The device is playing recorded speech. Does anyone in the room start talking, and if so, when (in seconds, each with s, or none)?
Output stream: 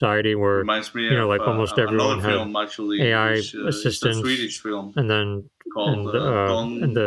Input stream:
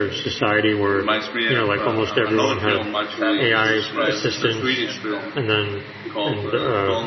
3.0 s